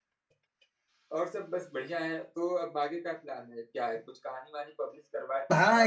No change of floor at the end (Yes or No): No